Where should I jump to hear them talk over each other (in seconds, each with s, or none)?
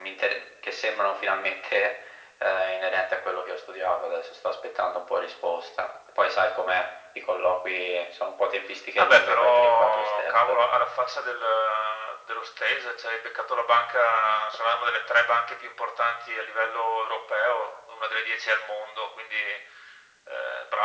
9.0 s